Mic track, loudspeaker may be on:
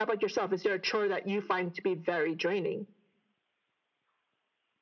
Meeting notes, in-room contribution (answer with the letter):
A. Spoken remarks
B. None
B